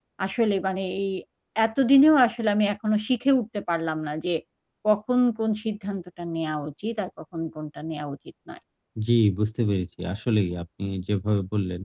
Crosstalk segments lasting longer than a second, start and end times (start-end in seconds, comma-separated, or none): none